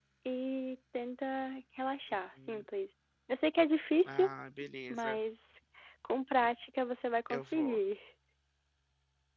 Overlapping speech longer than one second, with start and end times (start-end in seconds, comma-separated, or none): none